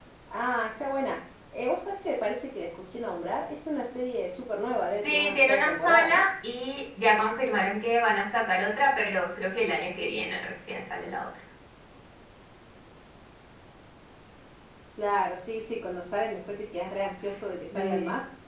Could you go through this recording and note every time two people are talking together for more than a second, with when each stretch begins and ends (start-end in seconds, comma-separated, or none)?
4.9-6.2